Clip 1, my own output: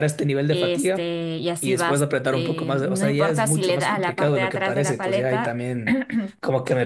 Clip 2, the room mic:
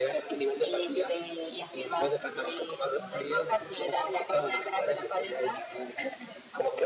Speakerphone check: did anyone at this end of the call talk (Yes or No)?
No